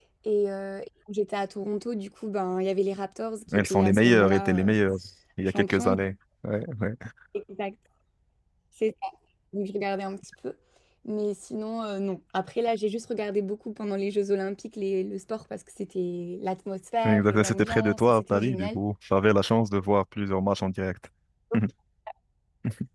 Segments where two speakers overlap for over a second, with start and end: 3.5-4.8, 17.0-18.8

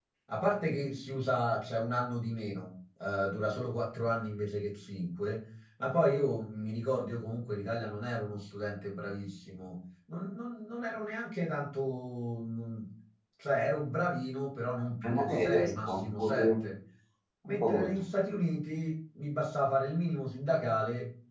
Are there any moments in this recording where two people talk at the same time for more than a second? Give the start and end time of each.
15.0-16.5

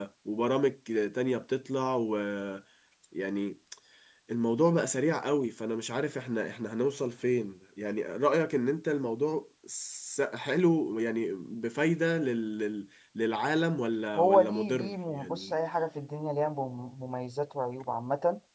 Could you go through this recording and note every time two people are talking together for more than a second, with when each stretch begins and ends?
14.2-15.5

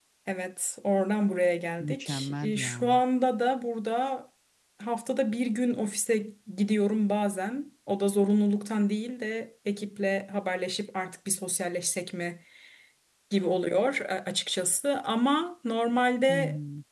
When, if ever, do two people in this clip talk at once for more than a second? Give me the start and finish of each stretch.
1.8-3.0

